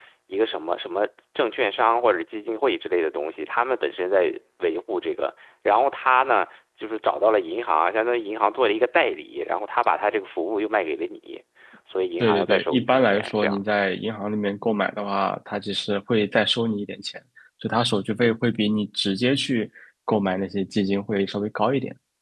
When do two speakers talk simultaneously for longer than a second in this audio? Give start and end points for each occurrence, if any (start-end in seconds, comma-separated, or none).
12.2-13.6